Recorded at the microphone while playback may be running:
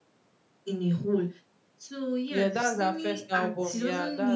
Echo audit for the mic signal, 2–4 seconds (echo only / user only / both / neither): both